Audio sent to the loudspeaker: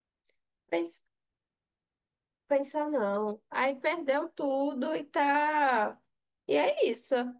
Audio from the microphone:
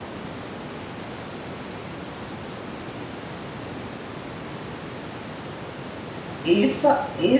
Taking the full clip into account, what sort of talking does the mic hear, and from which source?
user only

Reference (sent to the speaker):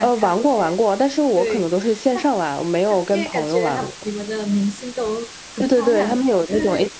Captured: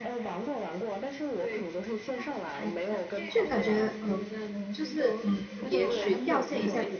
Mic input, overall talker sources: both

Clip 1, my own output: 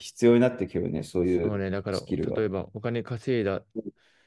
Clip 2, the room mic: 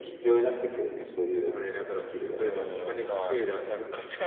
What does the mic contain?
both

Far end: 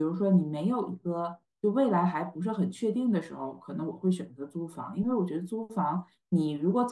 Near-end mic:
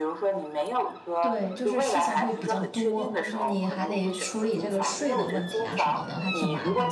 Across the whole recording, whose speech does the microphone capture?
both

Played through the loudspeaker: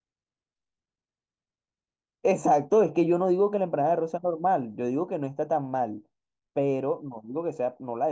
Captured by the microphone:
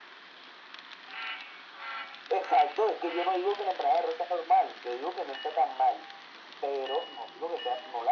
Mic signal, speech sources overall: echo only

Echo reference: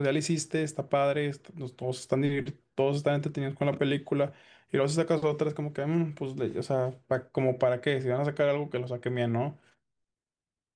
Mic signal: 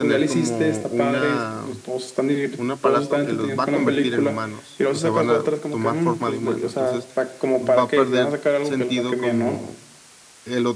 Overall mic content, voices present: both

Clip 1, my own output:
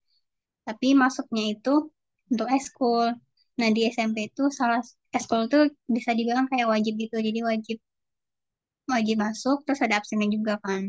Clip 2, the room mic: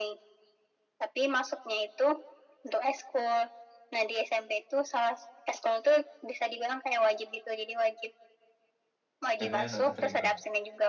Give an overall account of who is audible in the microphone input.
both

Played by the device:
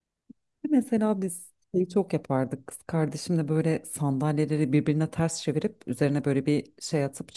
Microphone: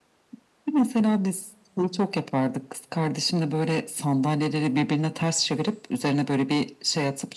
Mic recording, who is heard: echo only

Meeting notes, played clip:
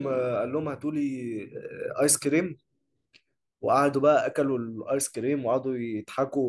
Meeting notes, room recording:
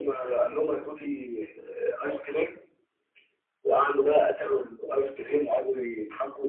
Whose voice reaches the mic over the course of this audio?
echo only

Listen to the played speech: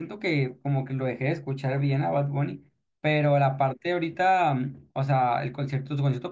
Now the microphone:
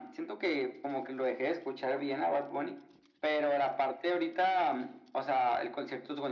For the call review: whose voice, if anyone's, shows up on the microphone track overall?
echo only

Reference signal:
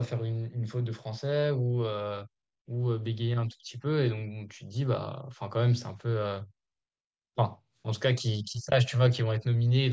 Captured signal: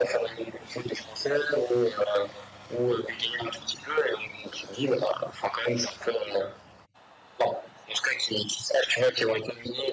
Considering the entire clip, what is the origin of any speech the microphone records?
echo only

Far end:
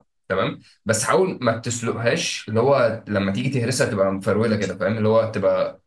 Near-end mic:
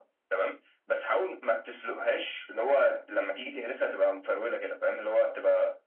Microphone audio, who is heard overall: echo only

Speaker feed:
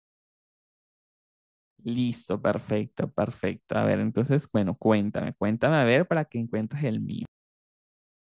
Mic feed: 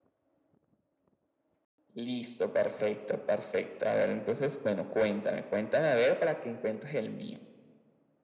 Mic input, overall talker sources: echo only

